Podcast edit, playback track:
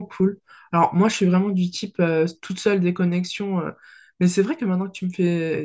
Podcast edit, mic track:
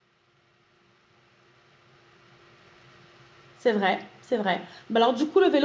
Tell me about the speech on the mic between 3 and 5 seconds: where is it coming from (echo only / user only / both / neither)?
user only